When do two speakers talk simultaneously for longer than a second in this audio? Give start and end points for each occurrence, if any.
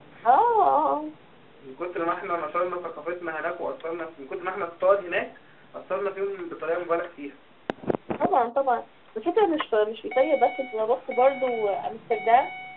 none

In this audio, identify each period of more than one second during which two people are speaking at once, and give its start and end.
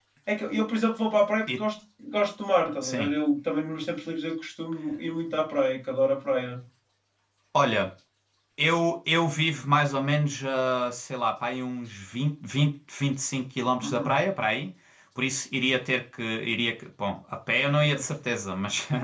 none

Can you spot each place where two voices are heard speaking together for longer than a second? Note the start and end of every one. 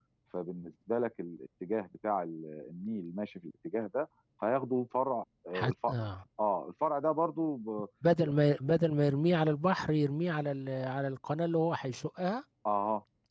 none

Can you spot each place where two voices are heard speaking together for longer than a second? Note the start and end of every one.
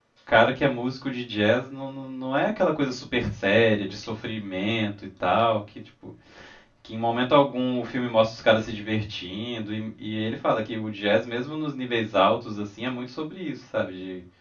none

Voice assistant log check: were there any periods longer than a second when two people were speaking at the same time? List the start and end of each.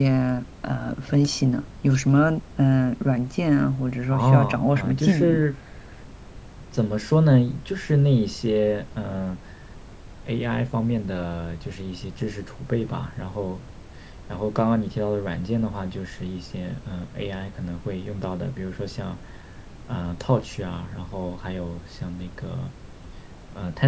4.1-5.4

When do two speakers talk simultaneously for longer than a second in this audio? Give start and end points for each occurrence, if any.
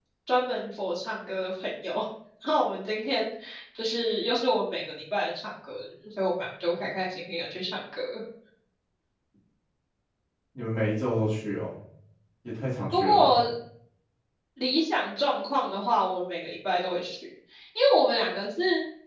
none

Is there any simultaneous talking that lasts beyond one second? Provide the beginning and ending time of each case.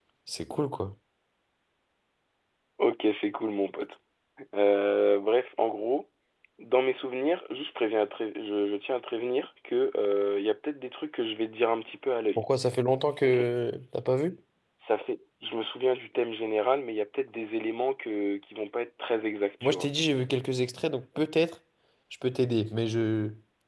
none

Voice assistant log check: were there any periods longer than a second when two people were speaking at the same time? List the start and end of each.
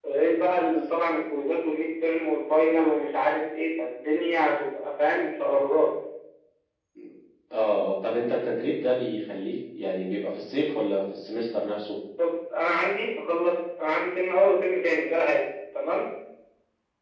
none

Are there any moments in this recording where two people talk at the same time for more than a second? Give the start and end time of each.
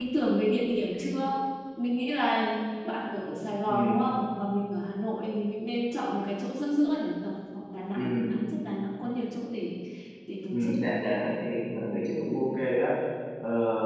none

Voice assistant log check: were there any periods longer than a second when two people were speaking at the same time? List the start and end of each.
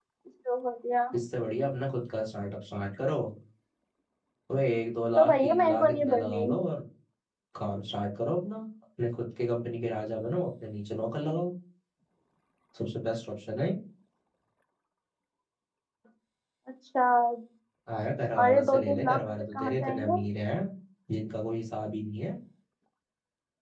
5.2-6.4, 18.4-20.2

